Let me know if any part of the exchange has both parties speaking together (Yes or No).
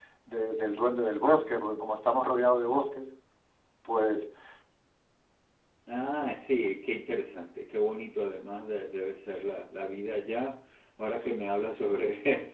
No